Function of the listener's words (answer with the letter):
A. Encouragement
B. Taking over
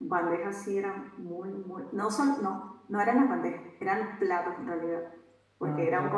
A